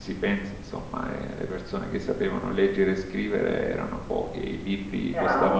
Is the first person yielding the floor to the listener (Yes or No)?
No